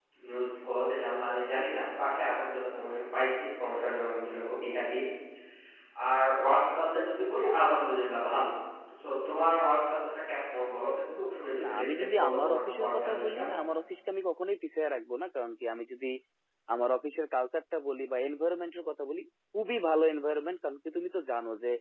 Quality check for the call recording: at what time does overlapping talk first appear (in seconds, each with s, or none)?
11.6 s